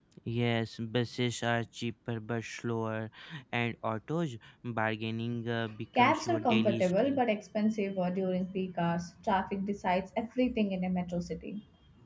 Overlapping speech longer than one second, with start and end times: 6.0-7.2

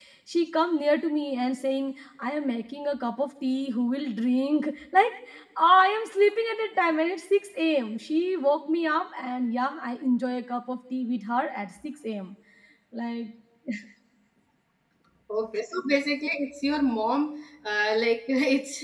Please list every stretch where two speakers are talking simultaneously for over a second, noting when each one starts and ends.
none

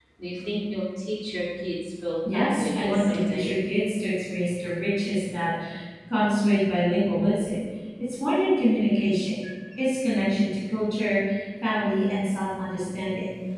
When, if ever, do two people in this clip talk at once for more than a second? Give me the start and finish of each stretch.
2.3-3.5

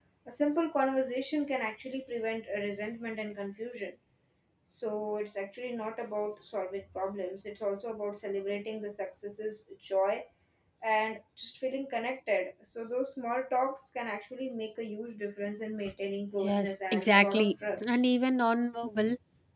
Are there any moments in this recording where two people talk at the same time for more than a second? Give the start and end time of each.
16.4-18.0

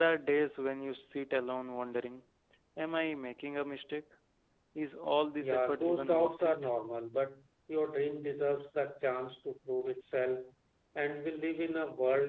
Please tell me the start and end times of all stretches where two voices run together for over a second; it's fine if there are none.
5.4-6.7

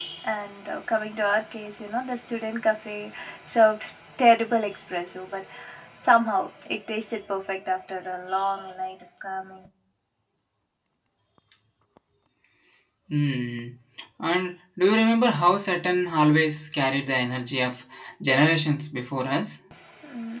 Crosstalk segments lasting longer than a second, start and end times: none

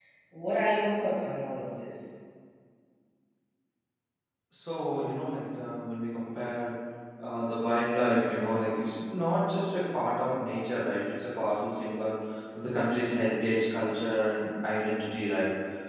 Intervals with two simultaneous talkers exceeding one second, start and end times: none

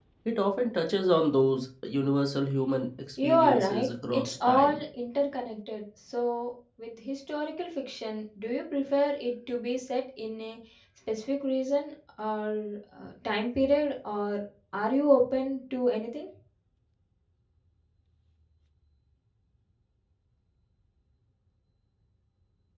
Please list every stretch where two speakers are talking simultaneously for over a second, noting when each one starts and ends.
3.2-4.8

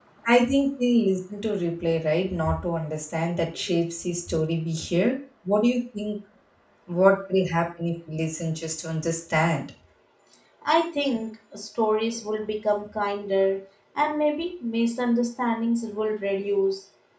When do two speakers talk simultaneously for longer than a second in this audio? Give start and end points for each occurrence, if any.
none

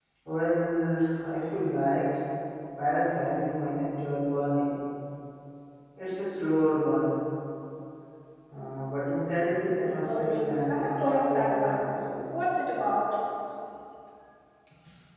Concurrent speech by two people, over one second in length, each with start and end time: 10.0-11.8

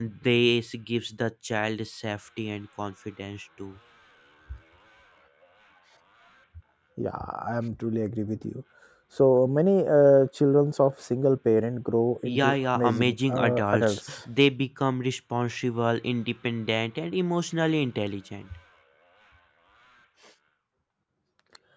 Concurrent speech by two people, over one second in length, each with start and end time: 12.4-14.2

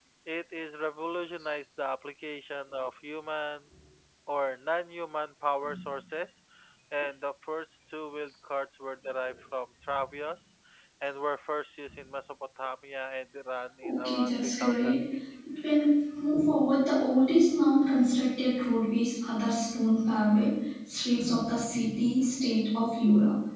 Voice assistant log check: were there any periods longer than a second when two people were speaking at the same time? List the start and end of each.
13.8-15.0

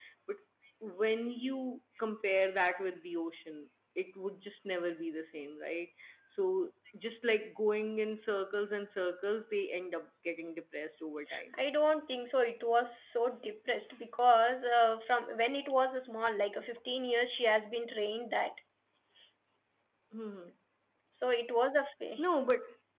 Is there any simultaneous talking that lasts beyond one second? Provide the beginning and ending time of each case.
none

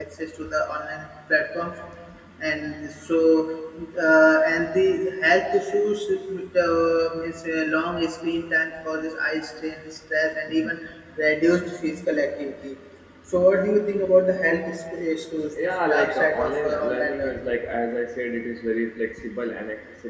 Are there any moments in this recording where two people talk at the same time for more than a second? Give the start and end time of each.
15.6-17.5

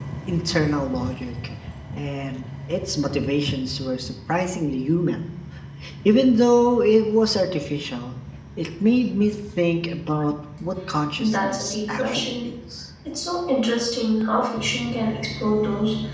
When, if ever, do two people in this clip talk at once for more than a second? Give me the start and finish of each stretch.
11.2-12.5

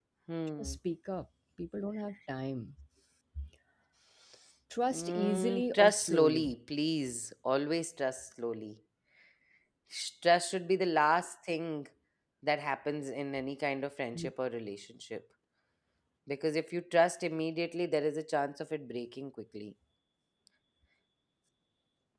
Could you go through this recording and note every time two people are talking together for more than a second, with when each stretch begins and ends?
4.9-6.5

